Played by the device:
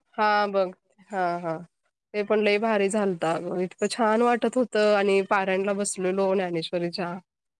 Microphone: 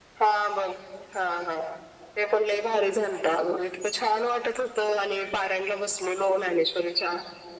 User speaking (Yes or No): No